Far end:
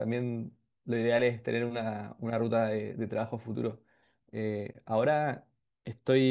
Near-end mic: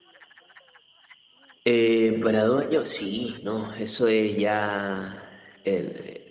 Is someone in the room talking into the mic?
Yes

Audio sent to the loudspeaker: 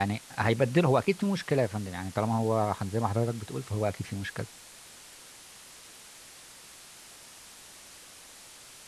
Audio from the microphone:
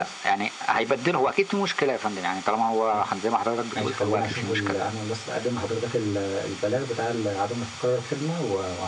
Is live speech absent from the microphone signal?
No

